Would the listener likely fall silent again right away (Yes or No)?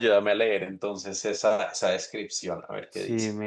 No